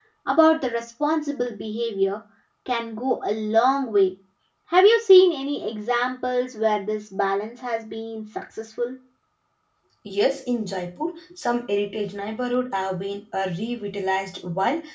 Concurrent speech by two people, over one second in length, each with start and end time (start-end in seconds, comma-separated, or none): none